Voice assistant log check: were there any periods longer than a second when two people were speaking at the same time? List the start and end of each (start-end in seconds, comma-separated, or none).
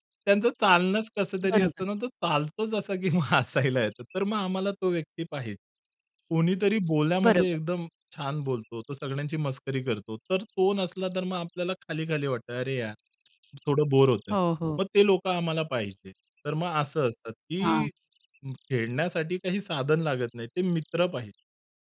none